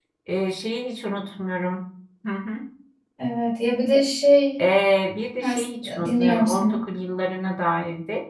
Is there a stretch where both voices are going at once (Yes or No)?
Yes